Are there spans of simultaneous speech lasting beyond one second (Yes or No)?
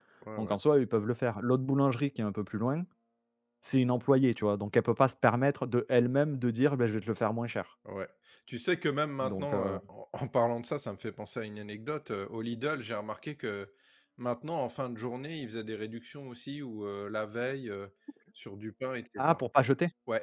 No